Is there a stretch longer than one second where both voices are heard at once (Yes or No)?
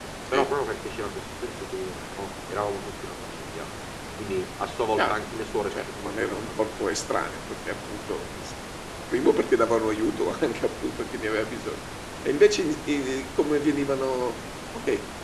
Yes